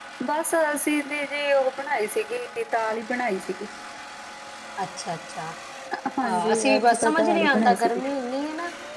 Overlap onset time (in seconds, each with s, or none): 6.2 s